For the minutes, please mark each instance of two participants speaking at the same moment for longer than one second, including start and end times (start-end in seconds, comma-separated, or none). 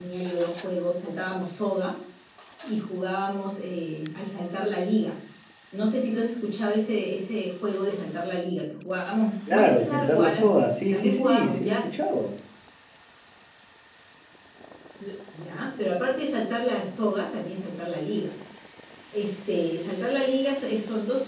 9.5-12.1